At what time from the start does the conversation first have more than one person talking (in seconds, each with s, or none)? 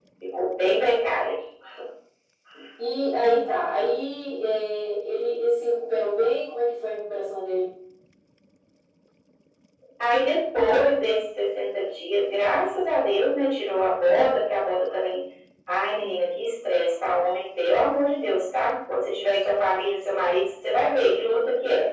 none